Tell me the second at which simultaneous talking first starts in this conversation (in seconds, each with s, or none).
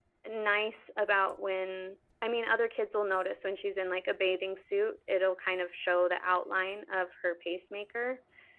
none